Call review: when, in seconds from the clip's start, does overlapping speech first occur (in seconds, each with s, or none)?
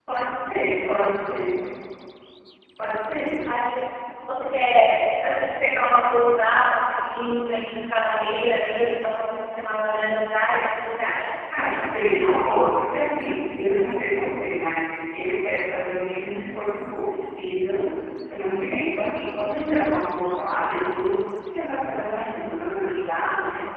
none